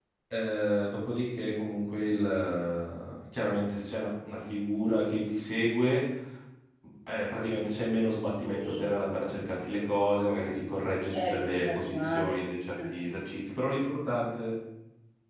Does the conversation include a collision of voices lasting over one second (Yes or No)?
Yes